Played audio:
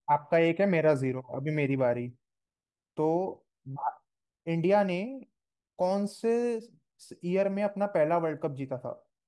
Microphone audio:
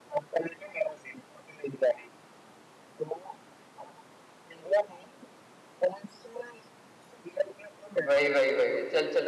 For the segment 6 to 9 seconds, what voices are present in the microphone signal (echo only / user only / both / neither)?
both